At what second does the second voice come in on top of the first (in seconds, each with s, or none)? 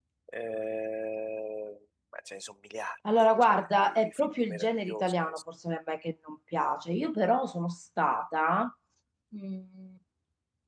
3.0 s